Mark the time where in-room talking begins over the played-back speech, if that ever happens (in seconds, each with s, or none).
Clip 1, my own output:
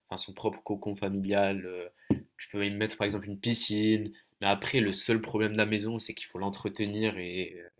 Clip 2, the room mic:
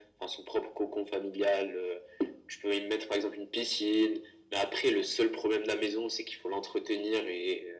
none